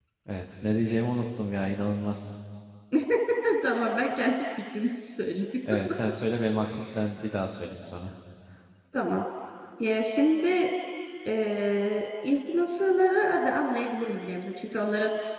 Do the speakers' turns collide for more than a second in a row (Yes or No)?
No